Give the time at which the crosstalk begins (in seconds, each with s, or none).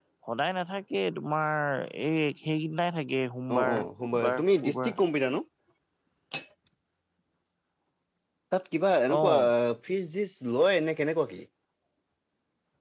3.6 s